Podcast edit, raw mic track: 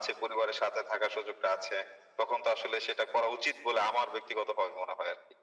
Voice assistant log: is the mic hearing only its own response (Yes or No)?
Yes